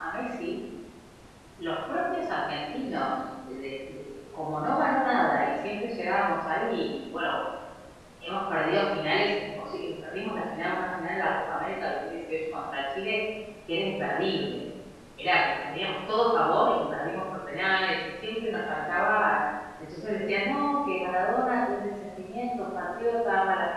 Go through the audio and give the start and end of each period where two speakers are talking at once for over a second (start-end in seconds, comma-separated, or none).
none